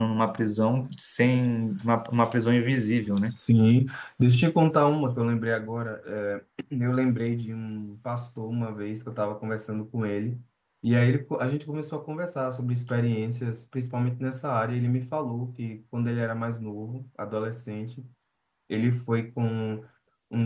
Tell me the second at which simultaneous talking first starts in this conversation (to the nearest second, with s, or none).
none